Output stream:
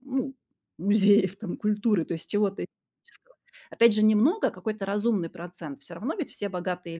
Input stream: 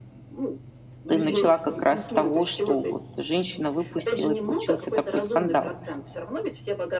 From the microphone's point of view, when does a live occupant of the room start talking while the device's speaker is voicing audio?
1 s

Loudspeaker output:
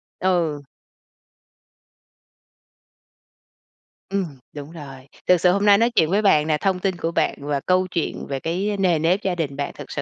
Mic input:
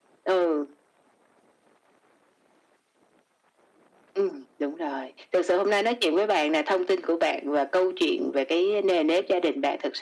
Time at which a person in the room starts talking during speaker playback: none

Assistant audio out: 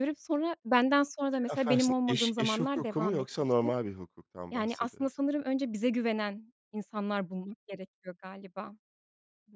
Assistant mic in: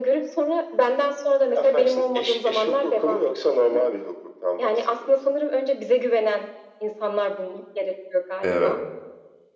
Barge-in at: 8 s

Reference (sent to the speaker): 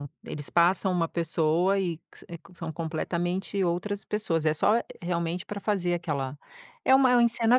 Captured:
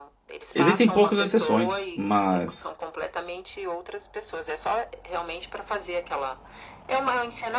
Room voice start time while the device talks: 1 s

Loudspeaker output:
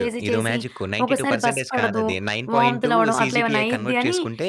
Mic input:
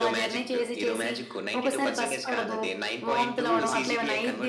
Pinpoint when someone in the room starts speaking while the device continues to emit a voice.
none

